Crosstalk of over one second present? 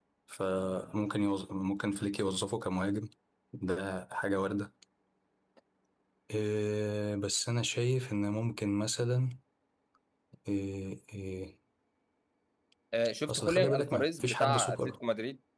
Yes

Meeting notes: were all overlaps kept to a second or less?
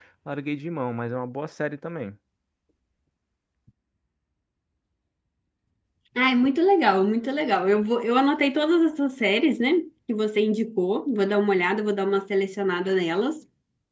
Yes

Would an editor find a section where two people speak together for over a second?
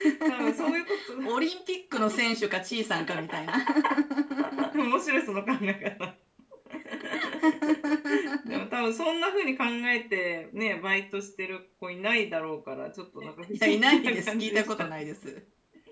Yes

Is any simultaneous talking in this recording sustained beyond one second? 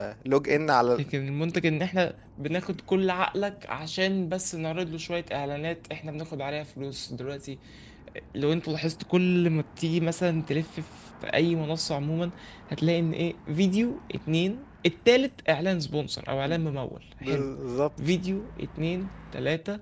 No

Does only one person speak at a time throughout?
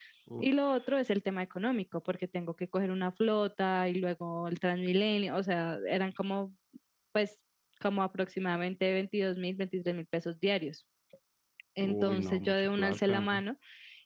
No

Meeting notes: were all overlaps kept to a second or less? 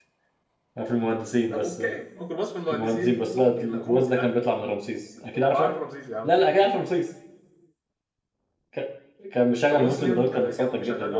No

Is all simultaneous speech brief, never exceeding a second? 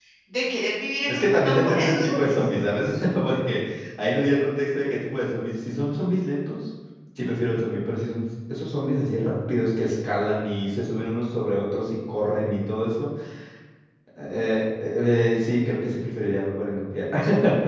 No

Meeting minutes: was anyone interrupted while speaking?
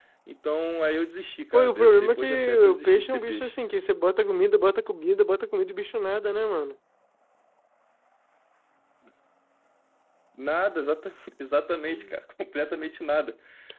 Yes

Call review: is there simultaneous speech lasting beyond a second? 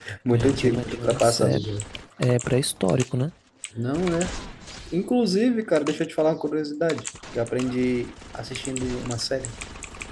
Yes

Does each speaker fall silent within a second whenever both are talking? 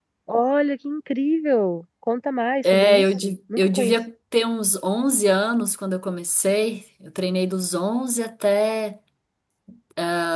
No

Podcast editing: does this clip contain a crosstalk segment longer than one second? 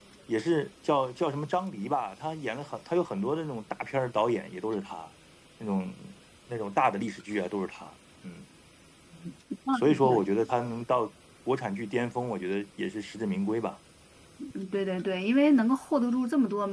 No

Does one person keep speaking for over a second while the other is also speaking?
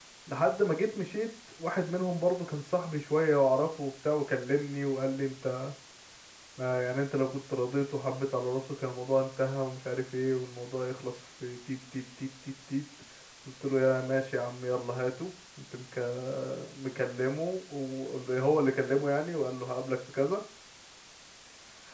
No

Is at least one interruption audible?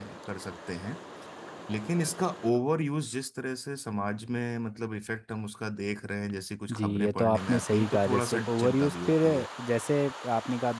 Yes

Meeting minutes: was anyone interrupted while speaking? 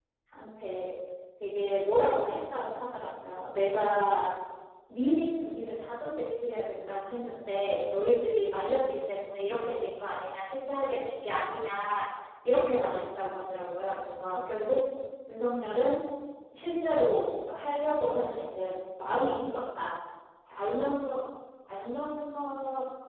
No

